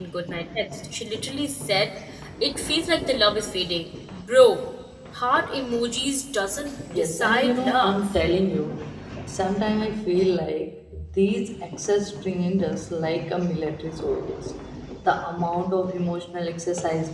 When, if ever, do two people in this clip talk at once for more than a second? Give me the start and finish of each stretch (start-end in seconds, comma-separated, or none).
6.9-8.1